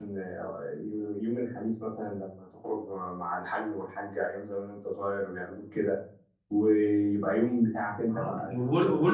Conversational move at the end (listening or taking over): taking over